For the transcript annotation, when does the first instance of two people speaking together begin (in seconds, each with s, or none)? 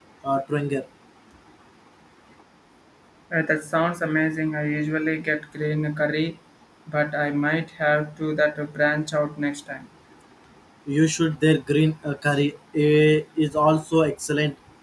none